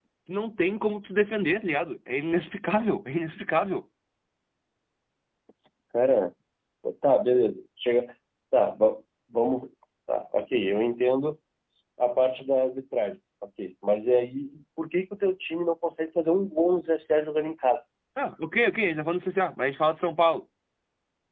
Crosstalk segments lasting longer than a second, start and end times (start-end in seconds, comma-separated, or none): none